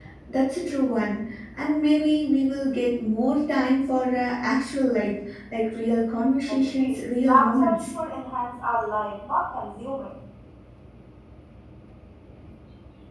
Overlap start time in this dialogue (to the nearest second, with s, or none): 6 s